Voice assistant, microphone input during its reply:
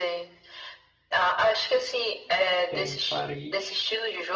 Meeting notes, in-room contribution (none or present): present